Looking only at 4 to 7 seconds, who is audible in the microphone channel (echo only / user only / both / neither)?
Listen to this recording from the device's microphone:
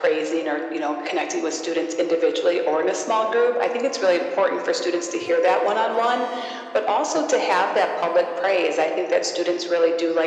echo only